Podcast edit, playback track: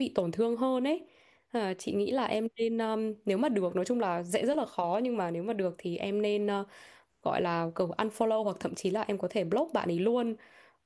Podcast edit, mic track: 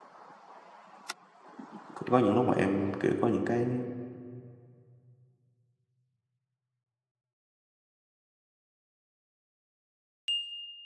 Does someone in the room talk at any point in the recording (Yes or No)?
Yes